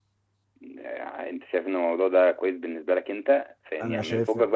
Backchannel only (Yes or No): Yes